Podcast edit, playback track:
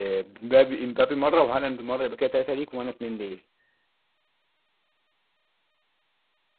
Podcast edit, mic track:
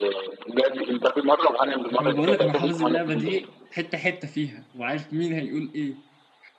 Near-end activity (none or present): present